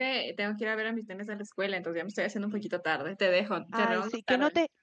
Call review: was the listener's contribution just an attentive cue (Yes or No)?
No